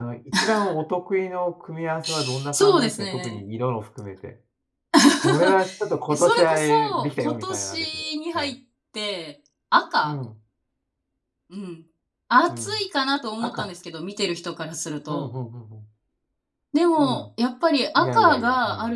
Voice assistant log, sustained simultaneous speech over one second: present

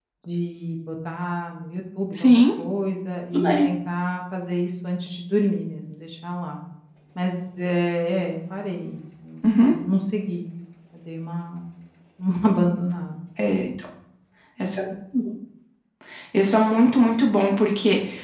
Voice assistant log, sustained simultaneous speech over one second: none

